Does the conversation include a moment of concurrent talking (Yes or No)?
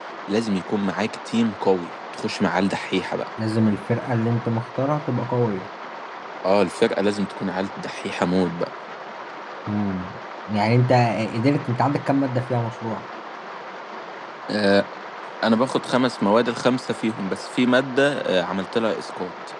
No